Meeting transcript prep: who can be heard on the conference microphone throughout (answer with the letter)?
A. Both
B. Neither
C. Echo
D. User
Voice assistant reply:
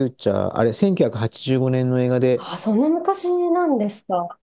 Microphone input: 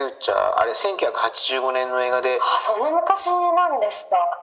C